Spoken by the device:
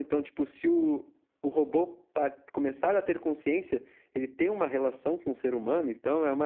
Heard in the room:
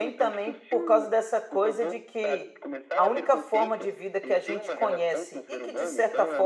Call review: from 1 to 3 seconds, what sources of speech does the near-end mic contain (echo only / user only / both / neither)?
both